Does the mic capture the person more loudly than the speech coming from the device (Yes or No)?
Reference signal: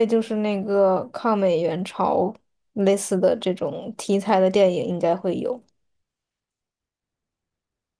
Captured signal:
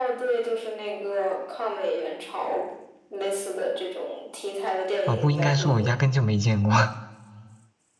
Yes